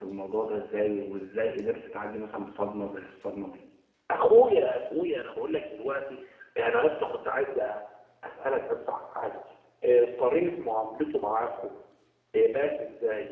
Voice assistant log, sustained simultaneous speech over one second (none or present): none